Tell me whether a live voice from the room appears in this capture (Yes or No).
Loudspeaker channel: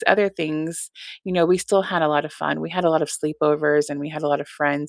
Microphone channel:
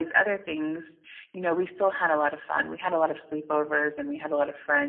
No